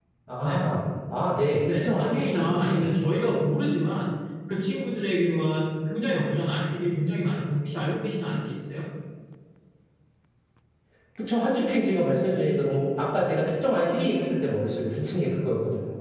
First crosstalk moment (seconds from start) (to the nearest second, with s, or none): 2 s